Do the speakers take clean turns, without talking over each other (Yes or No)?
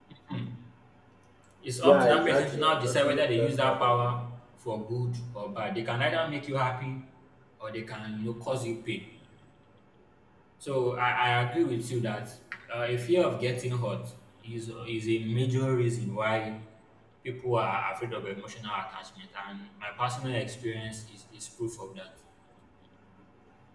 No